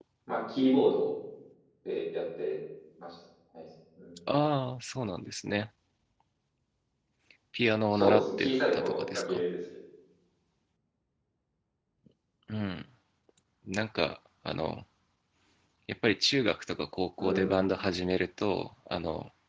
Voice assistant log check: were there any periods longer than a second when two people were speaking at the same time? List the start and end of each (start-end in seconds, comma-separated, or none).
7.9-9.4